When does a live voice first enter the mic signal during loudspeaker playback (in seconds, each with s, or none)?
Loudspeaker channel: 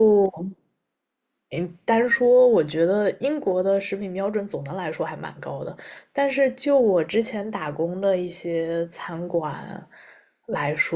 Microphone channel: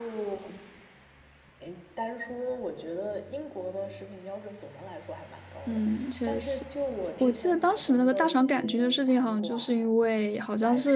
5.7 s